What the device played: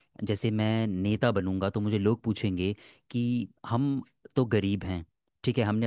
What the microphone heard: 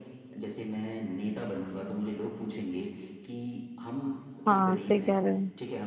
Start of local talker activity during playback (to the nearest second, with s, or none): 4 s